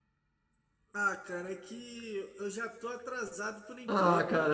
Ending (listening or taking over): taking over